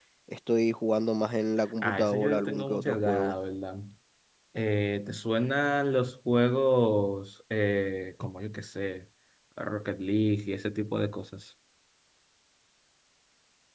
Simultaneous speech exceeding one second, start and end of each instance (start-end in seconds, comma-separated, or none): 1.8-3.3